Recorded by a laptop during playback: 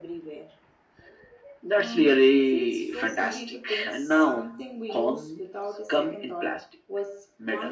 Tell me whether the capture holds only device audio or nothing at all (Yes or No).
Yes